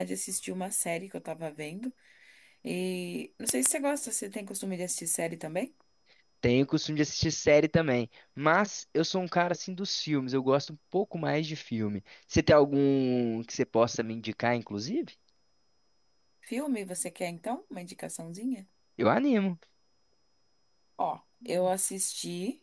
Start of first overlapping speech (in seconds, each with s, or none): none